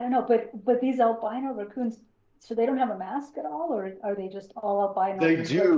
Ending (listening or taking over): taking over